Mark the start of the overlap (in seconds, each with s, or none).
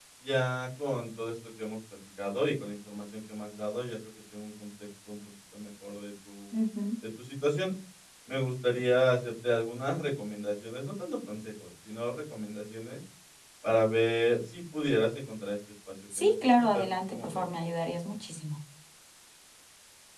16.1 s